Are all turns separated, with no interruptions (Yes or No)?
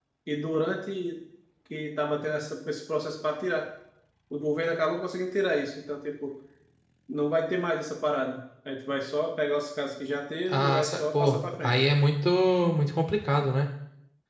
No